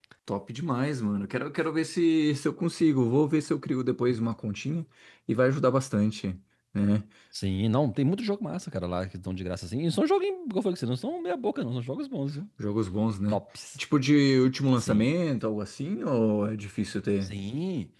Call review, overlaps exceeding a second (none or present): none